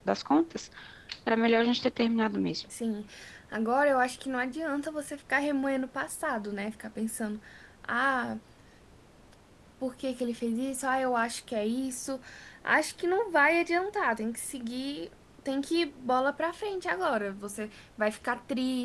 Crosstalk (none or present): none